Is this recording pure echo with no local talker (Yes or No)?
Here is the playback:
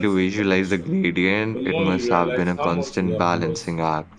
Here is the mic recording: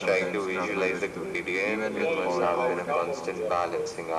No